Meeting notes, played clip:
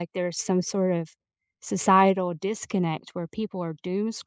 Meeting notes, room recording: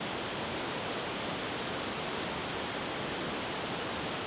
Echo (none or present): none